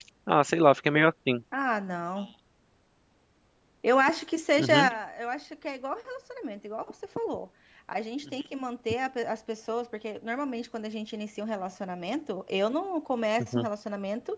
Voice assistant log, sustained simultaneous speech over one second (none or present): none